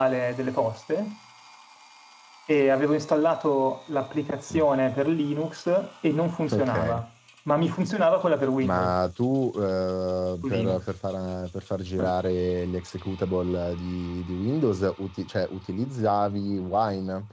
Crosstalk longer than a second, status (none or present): none